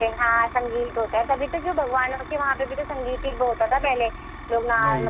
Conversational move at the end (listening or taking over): listening